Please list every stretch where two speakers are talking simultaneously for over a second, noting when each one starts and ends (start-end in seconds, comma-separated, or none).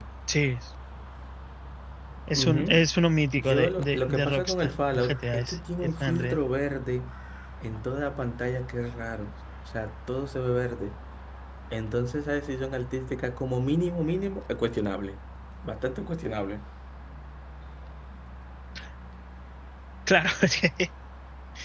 3.4-6.4